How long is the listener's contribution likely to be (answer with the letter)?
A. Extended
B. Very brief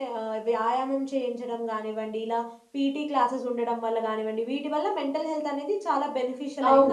A